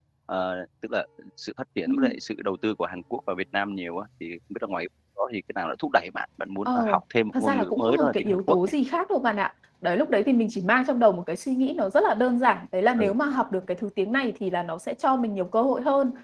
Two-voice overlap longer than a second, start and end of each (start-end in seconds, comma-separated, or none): 7.4-8.7